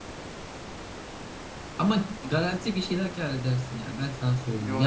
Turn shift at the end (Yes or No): Yes